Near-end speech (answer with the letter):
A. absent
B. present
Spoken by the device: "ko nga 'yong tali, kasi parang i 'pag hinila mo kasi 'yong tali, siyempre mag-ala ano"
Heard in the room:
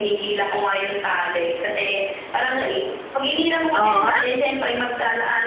B